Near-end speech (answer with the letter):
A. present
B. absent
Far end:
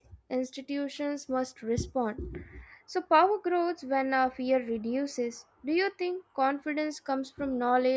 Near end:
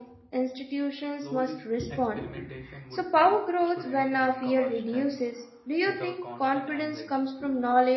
A